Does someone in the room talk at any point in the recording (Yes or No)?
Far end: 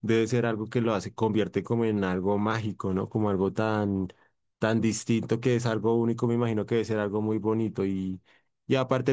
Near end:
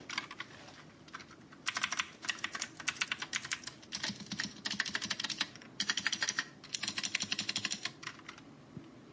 No